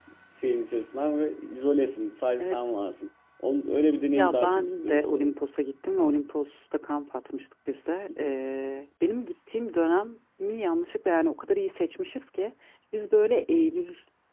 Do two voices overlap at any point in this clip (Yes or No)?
Yes